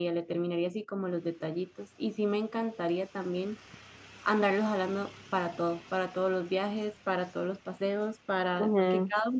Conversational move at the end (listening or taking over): listening